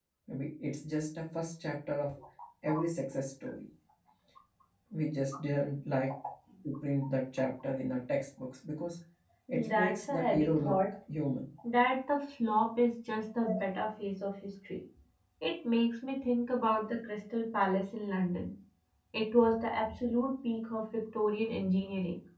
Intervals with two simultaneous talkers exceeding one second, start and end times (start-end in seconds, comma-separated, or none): 9.5-10.8